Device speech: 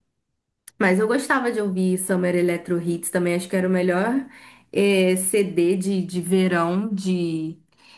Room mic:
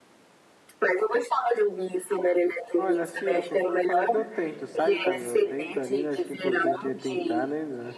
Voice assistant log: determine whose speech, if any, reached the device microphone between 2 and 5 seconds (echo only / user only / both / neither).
both